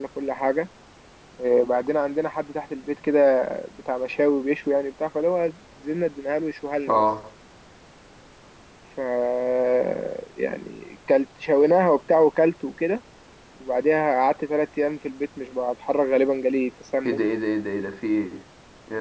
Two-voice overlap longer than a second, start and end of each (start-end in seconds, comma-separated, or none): none